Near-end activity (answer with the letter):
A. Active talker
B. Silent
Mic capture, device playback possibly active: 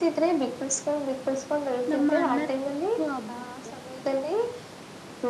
A